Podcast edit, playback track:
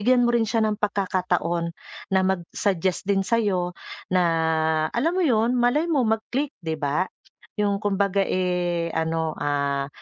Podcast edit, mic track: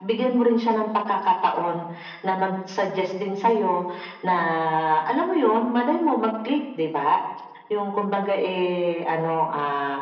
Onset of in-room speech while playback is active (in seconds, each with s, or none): none